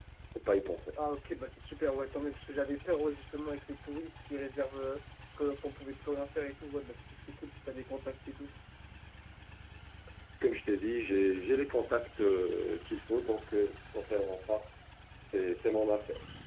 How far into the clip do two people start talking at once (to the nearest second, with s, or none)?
none